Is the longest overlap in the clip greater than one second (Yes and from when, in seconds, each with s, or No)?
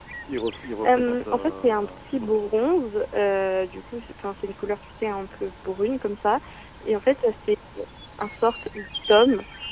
Yes, from 0.8 s